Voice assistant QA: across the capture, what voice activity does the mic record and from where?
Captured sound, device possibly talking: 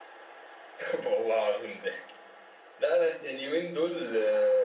echo only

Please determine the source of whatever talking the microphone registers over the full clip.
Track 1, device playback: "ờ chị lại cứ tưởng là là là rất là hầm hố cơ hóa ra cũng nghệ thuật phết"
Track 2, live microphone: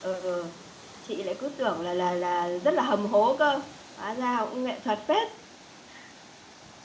echo only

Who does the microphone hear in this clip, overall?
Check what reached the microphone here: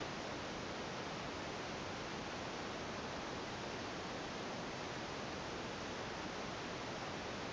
neither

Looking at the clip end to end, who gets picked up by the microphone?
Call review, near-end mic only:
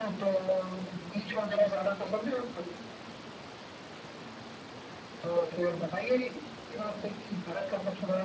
echo only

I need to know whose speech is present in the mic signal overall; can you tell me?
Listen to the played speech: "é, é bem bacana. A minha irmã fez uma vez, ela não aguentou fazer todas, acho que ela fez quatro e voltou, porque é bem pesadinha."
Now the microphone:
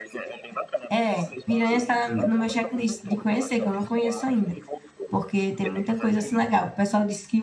both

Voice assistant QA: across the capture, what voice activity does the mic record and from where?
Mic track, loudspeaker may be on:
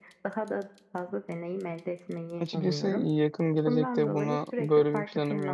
both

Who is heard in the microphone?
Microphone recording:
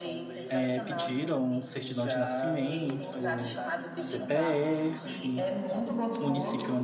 both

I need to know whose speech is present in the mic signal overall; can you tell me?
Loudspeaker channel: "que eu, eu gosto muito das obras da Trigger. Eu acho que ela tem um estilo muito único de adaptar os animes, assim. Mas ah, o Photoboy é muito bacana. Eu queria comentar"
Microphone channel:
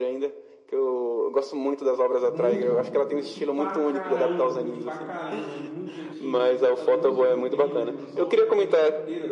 both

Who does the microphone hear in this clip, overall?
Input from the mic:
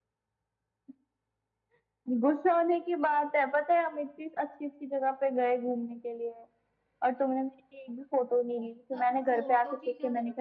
both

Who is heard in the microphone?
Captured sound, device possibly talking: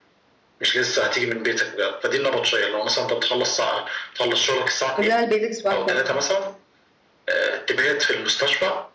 both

